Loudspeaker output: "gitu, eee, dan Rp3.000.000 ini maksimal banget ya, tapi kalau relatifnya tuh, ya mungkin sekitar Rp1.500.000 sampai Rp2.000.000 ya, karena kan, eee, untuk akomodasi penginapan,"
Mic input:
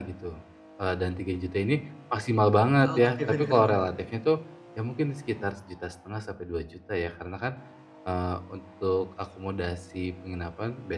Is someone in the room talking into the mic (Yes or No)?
Yes